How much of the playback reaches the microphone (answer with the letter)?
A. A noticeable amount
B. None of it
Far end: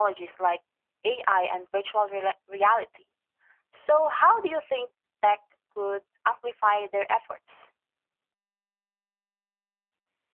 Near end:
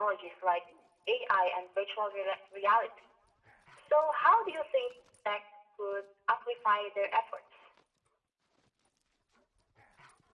A